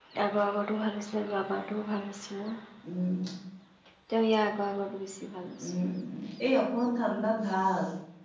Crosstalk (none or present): none